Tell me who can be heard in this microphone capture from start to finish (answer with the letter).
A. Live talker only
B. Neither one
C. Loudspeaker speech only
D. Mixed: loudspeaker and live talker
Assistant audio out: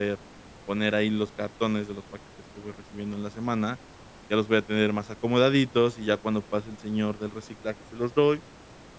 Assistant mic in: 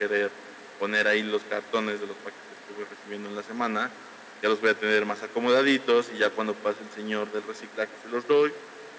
C